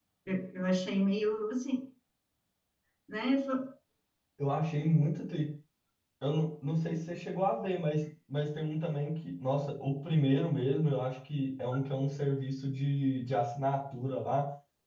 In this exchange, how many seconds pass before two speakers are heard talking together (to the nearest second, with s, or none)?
none